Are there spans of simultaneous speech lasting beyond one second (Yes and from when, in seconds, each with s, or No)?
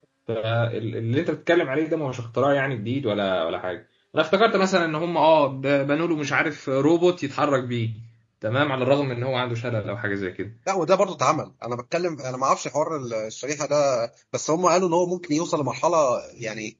No